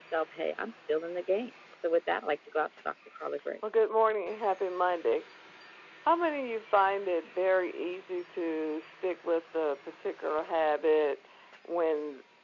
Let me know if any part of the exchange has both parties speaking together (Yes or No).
No